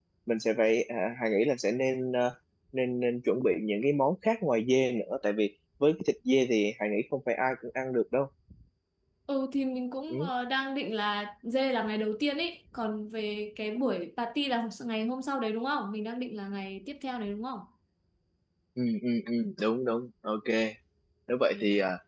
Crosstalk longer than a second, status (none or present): none